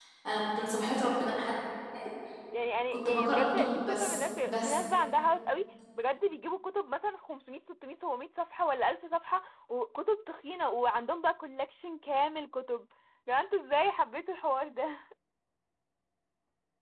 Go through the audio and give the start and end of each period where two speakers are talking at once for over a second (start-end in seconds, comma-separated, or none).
3.0-4.8